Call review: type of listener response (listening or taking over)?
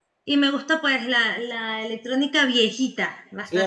taking over